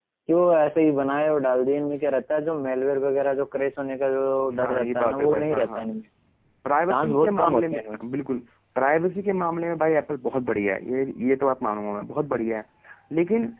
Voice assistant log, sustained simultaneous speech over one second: present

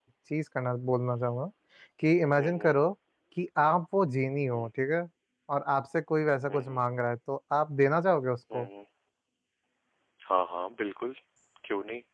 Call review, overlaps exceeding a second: none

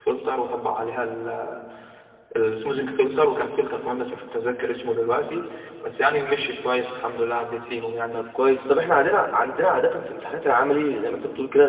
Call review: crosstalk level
none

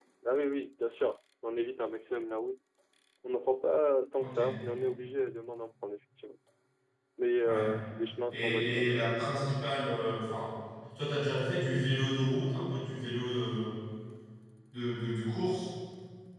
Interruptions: present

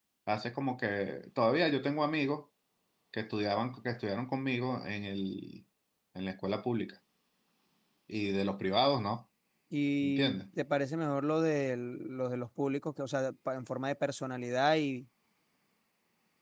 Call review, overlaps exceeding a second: none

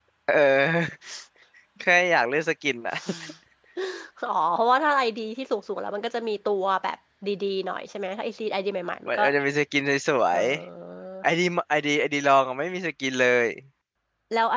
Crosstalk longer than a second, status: none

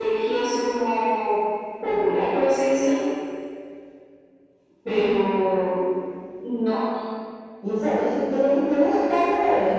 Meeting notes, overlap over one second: none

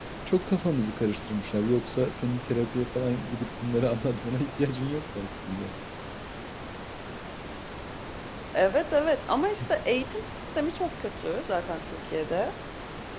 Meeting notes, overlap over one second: none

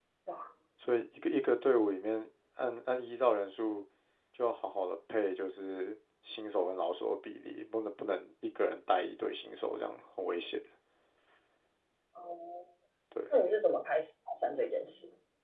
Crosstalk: none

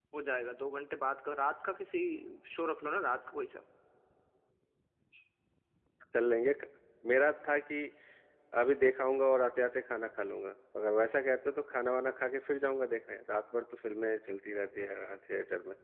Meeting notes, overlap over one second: none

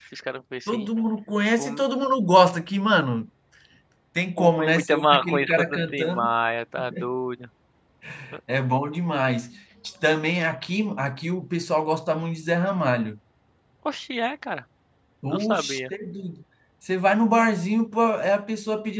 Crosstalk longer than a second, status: present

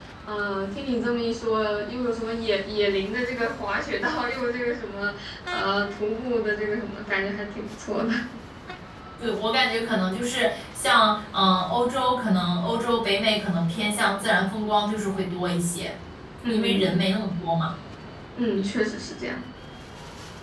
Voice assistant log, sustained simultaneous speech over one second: none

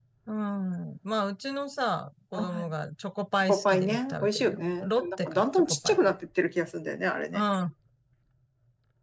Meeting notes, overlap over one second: present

